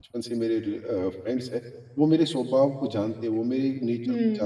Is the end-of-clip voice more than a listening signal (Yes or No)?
No